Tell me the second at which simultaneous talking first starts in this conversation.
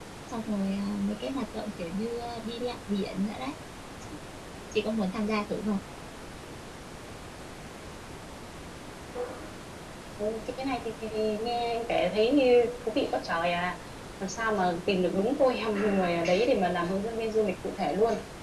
none

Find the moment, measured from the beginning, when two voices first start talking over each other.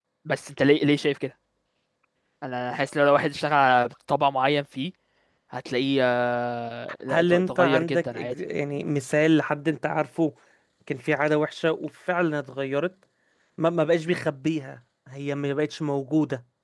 7.1 s

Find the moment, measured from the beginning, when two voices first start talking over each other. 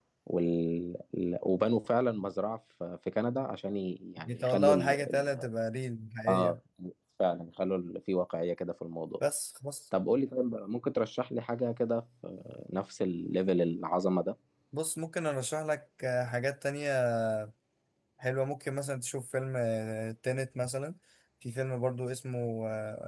4.2 s

